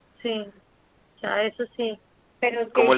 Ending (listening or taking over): taking over